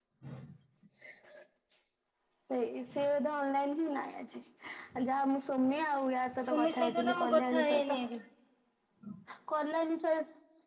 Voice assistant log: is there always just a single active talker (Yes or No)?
No